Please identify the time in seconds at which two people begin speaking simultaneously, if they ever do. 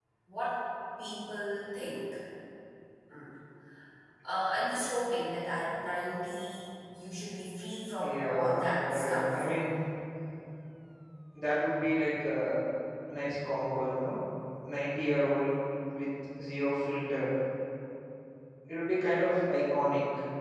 8 s

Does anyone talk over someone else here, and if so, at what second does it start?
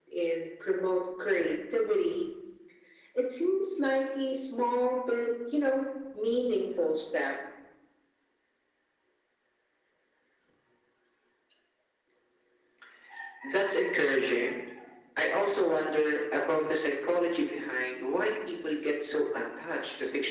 none

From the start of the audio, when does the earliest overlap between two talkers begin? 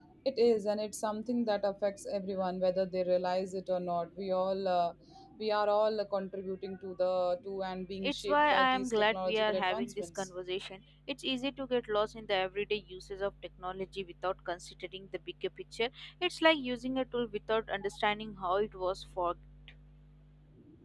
8 s

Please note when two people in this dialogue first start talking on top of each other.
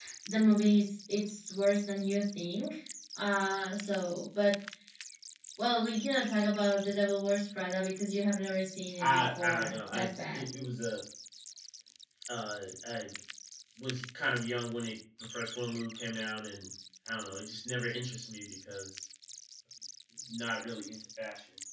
9 s

